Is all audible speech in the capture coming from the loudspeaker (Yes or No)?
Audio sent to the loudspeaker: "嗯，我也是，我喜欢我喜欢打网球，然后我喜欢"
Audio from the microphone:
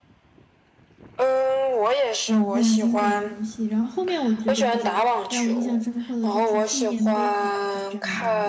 No